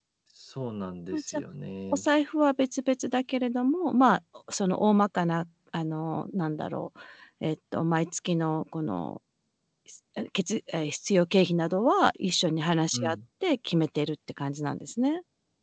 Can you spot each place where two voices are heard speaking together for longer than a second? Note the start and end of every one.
none

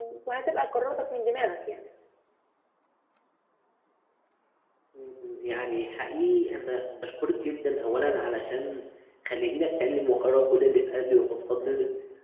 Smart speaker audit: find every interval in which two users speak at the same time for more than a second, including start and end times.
none

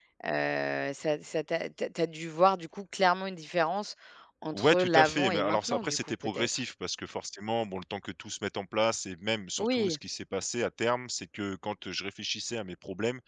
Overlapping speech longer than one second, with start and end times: 4.5-6.5

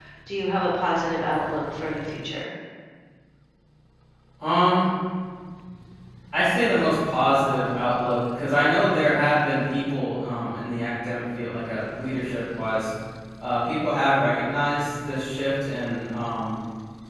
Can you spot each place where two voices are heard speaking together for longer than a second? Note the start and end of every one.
none

